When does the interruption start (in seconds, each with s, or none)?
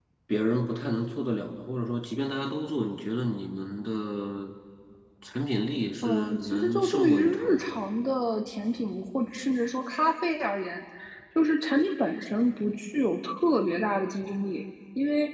6.0 s